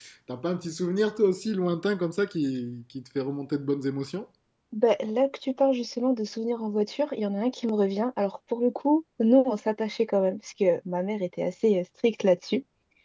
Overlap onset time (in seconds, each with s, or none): none